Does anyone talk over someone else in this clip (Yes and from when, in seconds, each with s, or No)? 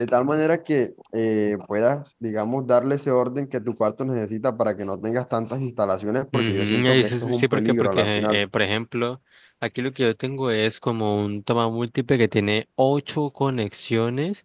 Yes, from 6.3 s